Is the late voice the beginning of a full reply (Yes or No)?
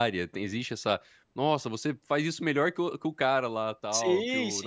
Yes